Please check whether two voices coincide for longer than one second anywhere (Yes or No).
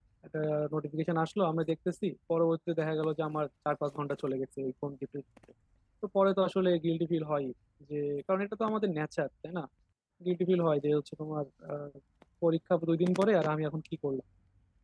No